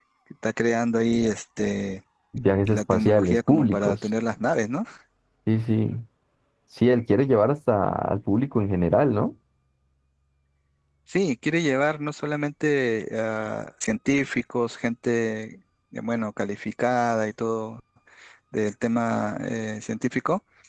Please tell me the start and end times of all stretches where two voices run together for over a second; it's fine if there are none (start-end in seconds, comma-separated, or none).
2.7-4.0